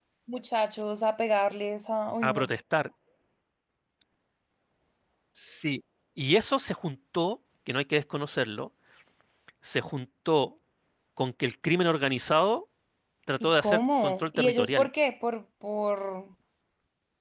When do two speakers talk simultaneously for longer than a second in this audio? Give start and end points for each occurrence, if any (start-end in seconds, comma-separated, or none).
13.4-14.9